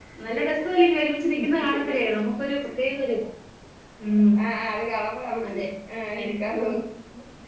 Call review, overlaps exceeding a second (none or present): none